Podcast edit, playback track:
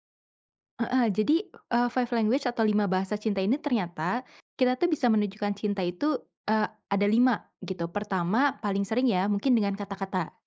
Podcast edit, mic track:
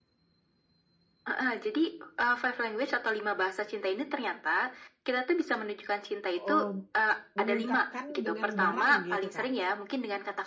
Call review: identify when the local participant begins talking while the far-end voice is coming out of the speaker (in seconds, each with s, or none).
6.3 s